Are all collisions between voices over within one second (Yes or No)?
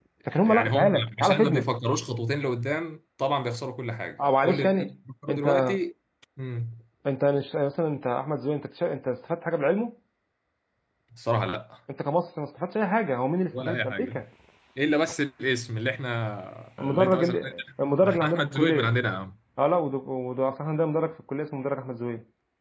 No